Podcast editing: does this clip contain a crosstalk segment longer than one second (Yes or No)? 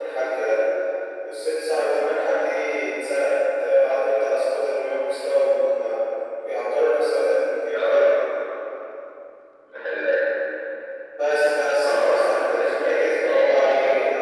Yes